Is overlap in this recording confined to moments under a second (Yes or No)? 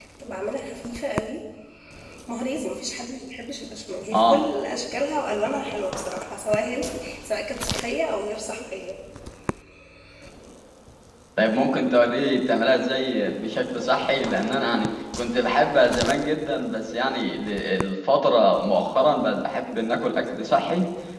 Yes